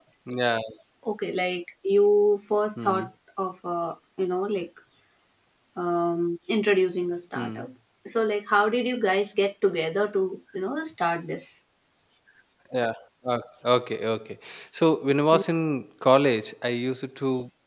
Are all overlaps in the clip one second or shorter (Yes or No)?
Yes